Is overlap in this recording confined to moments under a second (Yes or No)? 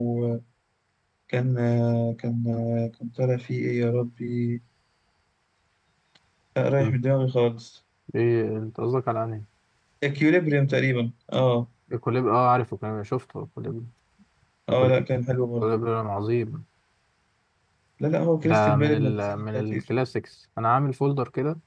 No